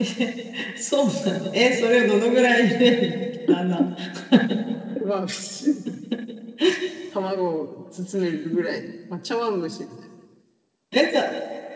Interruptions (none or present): none